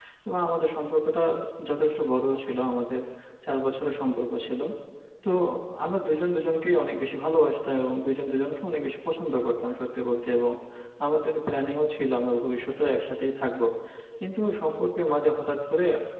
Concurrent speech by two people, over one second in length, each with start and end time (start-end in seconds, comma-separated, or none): none